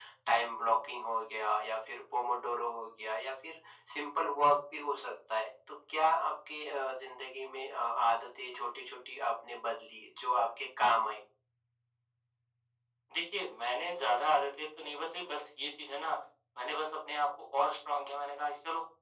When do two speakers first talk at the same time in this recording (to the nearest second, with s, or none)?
none